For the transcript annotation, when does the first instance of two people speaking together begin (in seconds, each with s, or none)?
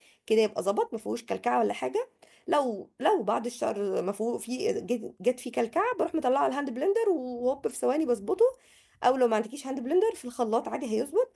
none